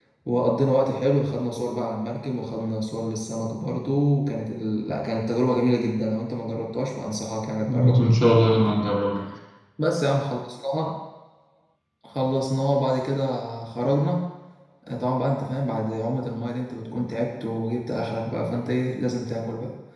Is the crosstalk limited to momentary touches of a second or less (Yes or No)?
Yes